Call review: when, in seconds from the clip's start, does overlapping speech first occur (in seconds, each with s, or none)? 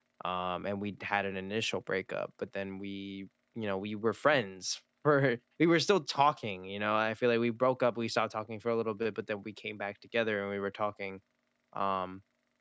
none